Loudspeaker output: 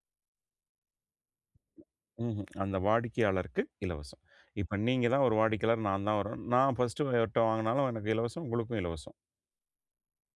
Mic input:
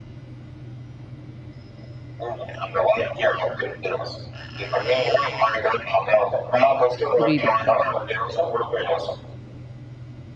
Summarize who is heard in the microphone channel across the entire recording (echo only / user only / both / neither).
both